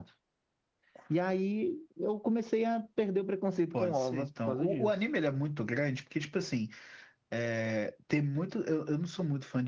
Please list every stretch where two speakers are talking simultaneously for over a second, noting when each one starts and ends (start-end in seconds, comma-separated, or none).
3.7-4.9